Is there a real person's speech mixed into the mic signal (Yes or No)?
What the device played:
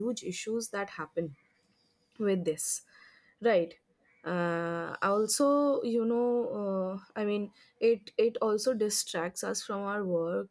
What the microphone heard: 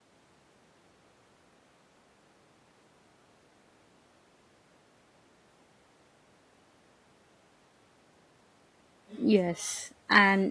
Yes